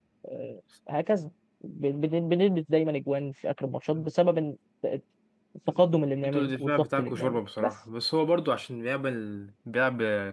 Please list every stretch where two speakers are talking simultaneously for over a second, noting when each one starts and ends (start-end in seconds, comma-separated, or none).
6.2-7.7